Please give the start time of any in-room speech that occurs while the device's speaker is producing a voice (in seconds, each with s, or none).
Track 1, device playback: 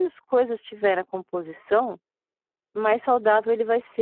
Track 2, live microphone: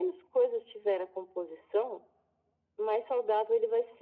none